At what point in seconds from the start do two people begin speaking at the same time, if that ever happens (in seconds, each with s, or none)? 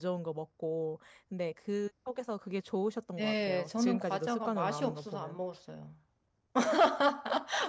3.2 s